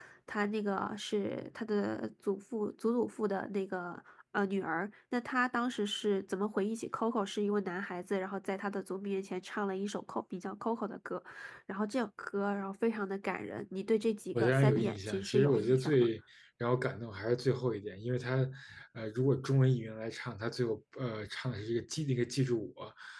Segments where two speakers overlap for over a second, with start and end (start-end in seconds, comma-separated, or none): 14.3-16.1